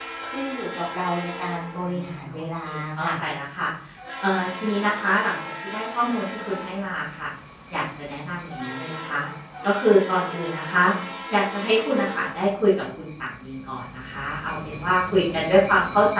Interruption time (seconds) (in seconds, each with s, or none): 1.8 s